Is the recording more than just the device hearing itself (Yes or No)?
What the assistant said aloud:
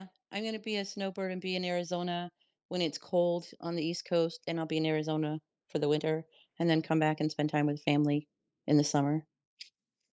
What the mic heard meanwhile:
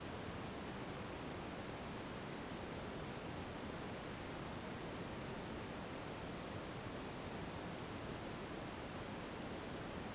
No